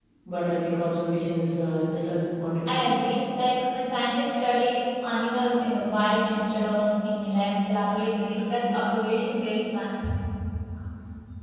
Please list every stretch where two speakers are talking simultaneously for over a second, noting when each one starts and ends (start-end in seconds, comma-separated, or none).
none